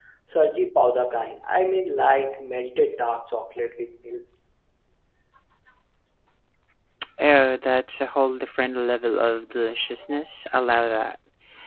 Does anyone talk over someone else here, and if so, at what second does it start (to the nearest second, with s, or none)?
none